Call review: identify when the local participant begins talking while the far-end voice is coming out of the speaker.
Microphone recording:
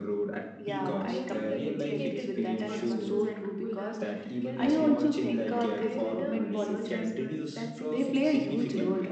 1 s

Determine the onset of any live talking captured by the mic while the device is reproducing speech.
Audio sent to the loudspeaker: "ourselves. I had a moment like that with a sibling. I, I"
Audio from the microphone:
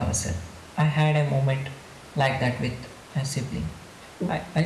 none

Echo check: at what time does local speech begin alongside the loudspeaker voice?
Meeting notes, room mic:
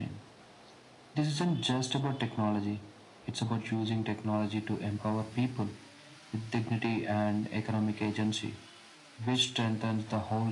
none

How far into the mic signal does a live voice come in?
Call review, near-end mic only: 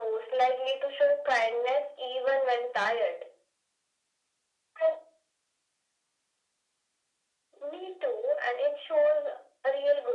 none

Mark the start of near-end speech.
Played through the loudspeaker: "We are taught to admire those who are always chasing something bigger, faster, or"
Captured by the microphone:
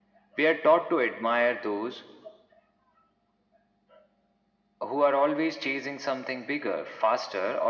none

